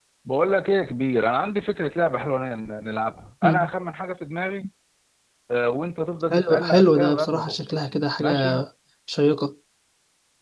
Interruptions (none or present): present